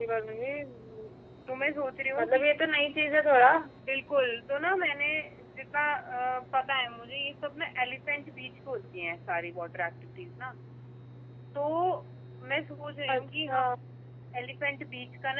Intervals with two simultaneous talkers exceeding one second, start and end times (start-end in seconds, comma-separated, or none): none